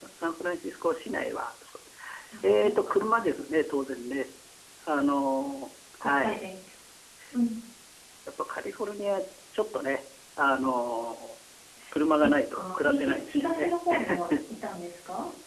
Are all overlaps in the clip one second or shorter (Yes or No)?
No